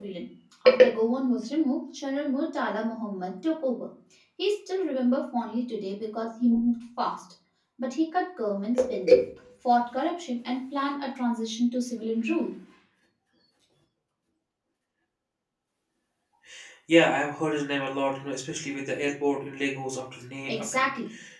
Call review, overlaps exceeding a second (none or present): none